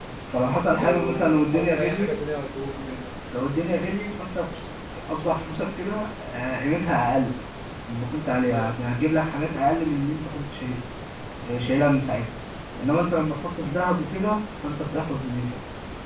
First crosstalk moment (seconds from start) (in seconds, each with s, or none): 0.8 s